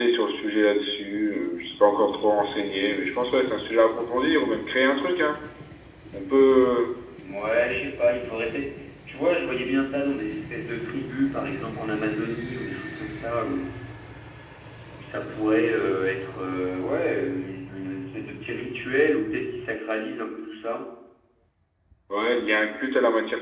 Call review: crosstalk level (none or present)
none